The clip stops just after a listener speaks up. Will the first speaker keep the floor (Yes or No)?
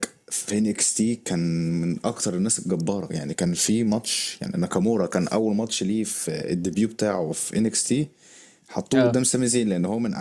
Yes